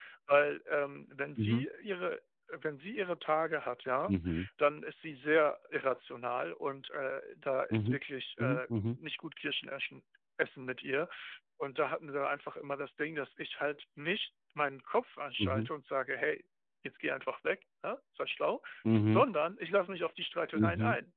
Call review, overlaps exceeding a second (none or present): none